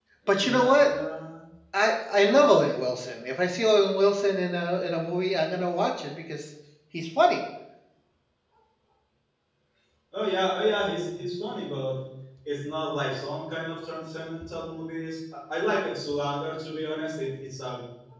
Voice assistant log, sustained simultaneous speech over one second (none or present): none